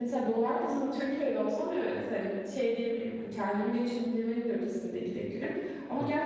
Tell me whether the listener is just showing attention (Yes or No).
Yes